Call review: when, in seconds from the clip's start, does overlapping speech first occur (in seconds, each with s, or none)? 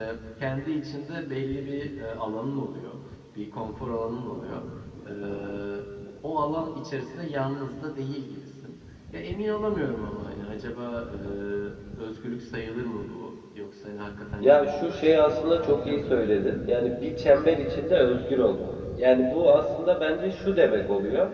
14.4 s